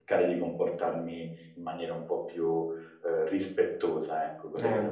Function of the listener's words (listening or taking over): taking over